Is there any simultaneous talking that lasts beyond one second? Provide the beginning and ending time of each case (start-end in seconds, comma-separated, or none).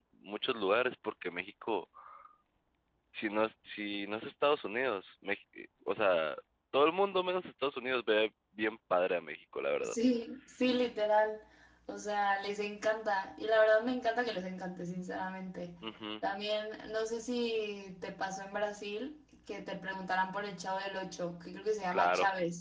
none